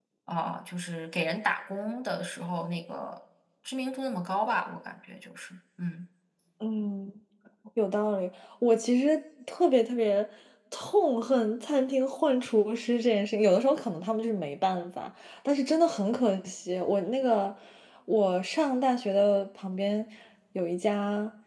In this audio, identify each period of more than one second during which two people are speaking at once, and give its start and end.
none

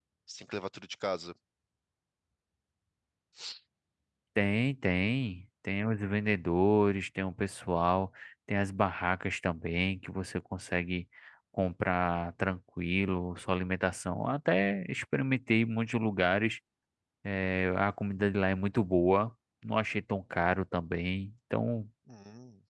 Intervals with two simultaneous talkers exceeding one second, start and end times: none

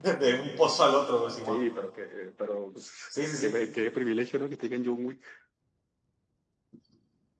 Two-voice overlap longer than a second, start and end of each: none

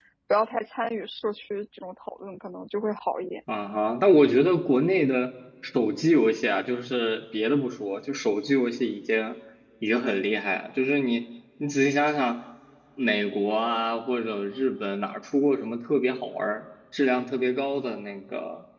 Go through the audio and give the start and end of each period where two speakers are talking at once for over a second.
none

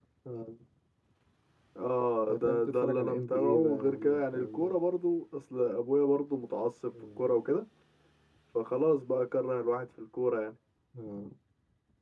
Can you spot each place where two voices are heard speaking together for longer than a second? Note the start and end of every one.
2.3-4.7

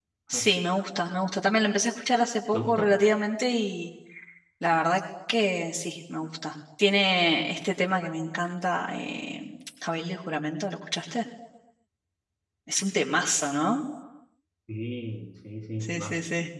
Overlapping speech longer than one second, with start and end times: none

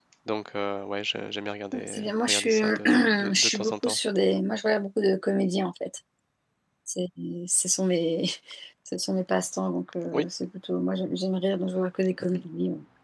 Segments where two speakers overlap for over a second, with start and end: 1.9-4.0

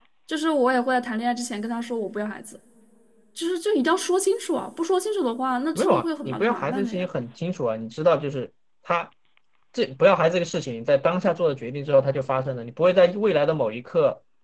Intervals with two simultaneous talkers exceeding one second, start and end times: 5.8-7.1

